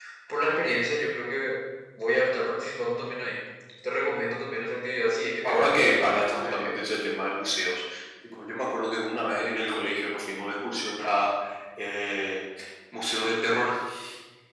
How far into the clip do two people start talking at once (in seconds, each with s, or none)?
5.4 s